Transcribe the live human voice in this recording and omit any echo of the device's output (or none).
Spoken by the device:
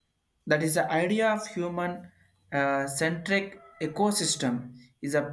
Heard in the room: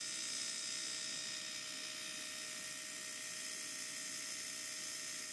none